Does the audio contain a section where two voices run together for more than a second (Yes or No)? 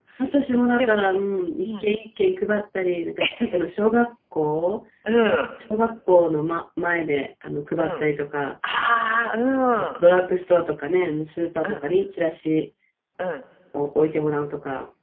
No